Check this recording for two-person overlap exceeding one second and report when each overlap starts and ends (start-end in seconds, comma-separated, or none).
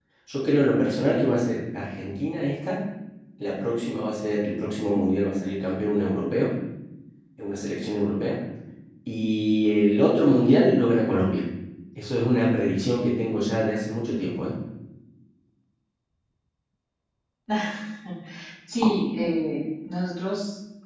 none